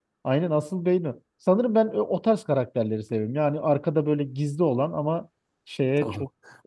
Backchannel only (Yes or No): No